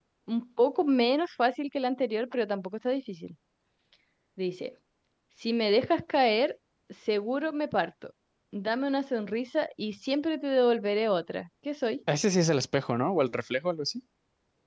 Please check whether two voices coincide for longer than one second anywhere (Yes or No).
No